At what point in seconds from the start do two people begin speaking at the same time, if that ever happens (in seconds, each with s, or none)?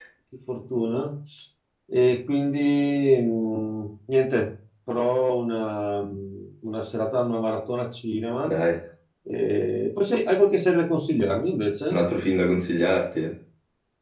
none